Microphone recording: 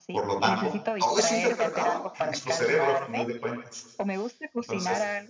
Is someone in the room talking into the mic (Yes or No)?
Yes